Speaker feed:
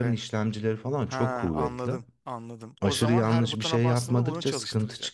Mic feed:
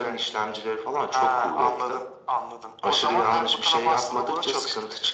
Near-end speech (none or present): none